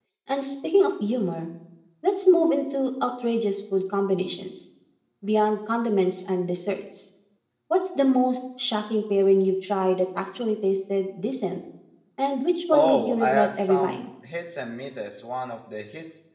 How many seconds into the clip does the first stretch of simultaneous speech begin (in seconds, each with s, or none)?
12.7 s